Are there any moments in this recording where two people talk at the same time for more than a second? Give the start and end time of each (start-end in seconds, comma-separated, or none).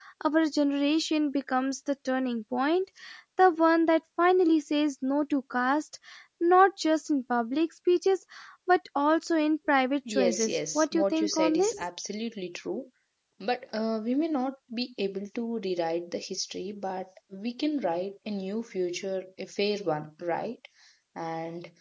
10.1-11.8